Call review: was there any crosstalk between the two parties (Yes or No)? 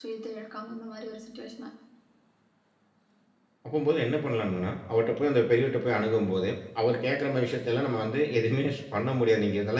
No